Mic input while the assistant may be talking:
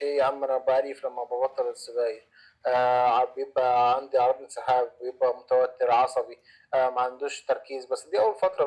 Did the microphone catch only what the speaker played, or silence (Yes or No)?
Yes